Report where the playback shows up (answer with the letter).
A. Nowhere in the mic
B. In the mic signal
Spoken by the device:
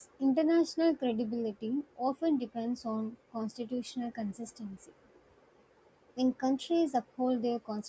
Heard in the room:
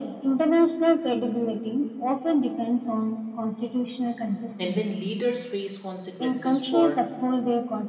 B